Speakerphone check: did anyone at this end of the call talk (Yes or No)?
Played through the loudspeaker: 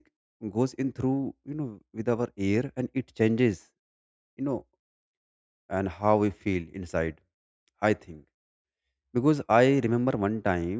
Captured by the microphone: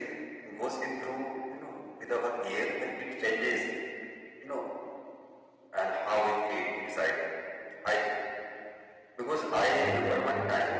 Yes